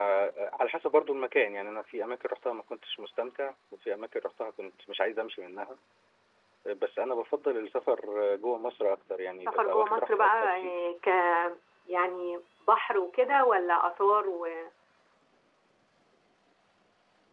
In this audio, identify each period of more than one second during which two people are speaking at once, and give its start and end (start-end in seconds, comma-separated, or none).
9.5-10.8